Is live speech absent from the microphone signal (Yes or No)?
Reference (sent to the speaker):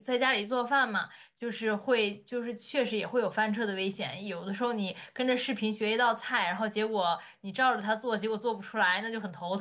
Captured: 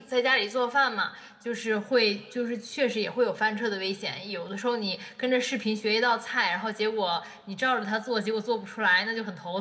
Yes